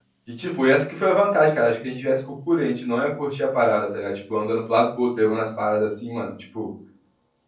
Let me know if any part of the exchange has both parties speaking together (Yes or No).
No